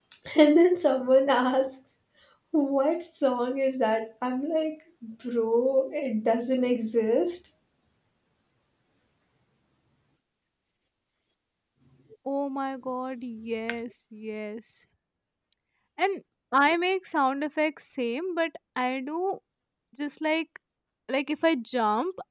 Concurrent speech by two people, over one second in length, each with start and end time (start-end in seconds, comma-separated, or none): none